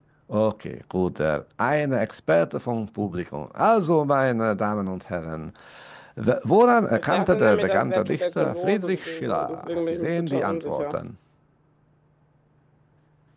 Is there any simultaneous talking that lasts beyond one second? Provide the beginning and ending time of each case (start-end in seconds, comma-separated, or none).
6.9-11.0